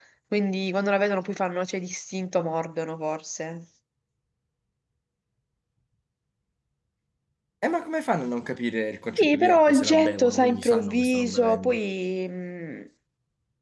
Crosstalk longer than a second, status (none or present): present